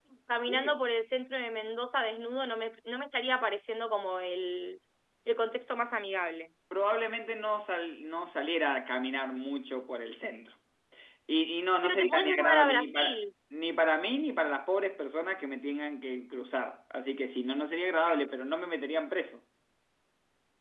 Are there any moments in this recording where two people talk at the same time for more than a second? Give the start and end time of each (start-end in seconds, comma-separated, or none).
11.8-13.2